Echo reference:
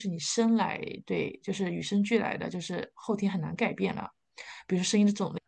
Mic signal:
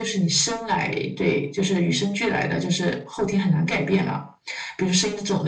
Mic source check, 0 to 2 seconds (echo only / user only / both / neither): echo only